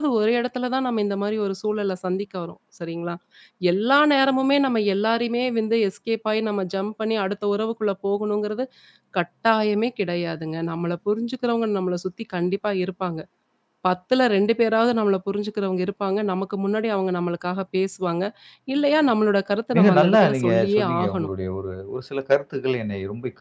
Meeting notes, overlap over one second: present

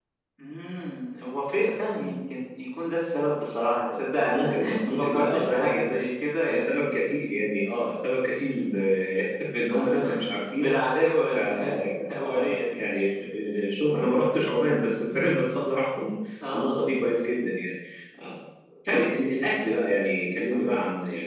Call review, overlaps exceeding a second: present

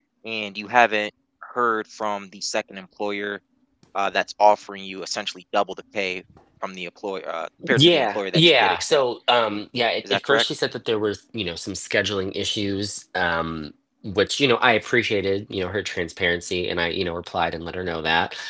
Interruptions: present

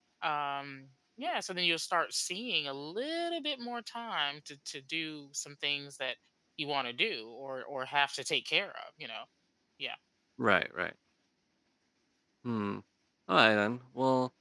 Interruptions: none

